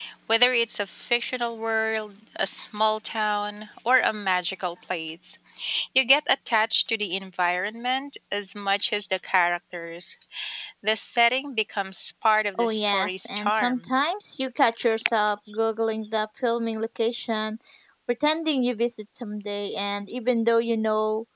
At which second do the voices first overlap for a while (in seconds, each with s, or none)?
12.6 s